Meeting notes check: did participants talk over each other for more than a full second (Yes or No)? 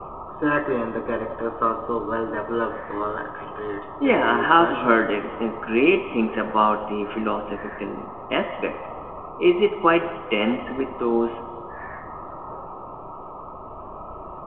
Yes